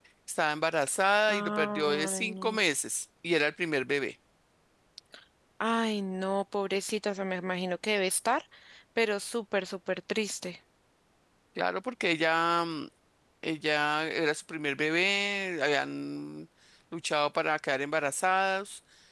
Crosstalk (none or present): present